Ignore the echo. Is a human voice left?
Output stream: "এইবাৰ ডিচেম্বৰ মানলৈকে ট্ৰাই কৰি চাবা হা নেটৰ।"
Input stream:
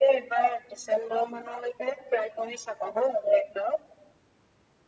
No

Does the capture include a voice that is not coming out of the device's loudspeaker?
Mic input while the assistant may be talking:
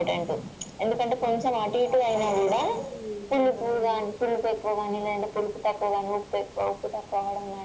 Yes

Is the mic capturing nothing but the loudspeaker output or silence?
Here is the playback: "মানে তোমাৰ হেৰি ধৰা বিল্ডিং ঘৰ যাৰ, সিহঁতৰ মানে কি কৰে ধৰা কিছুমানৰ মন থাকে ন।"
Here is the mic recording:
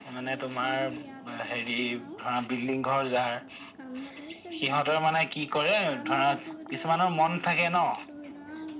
No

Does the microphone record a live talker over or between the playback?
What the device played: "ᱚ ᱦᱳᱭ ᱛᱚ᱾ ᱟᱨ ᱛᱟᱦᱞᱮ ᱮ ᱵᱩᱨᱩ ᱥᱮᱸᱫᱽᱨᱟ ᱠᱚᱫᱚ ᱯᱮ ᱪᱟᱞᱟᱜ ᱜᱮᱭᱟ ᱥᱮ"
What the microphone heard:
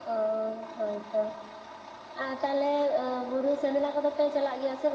No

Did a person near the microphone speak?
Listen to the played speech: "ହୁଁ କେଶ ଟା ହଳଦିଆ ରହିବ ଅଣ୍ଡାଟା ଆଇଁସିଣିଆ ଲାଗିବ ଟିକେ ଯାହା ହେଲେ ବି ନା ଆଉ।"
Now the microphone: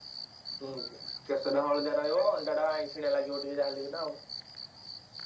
No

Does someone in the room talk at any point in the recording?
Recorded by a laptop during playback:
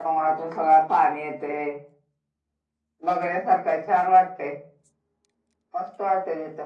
Yes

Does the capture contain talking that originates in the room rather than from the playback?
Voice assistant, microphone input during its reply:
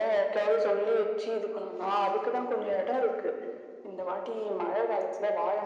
No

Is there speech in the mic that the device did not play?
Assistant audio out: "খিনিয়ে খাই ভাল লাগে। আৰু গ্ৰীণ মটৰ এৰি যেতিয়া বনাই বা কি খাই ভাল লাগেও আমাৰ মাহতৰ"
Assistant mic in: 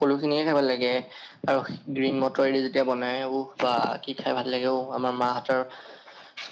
No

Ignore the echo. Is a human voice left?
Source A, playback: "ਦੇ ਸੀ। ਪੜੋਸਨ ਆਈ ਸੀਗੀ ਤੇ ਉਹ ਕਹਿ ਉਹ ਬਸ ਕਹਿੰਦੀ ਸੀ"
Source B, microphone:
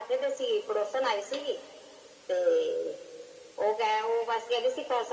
No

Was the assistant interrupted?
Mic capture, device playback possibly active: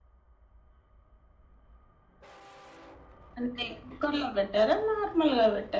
Yes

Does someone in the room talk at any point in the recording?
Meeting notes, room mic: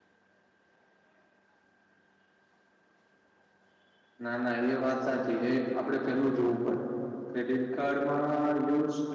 Yes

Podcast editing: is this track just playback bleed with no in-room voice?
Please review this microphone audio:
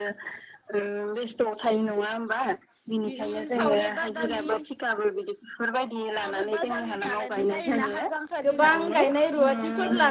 No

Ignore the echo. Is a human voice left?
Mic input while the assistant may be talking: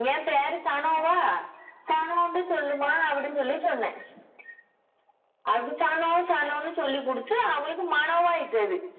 No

